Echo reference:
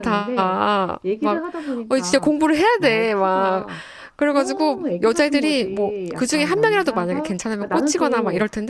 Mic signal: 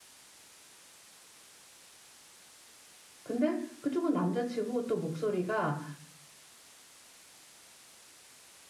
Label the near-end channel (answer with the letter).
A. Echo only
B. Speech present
B